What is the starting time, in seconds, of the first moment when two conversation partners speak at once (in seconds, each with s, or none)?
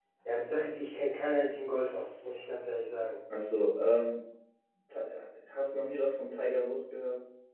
none